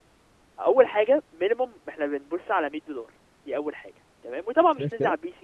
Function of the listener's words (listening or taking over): listening